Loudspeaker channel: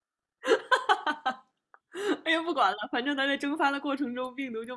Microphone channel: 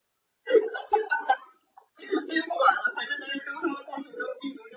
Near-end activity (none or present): none